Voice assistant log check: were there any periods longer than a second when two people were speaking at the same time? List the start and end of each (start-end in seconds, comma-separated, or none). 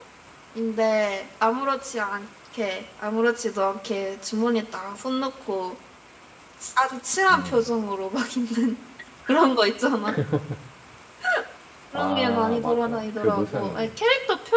11.9-13.9